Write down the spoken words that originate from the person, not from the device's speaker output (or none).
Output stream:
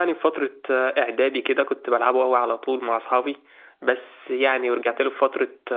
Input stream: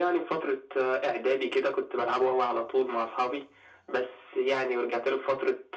none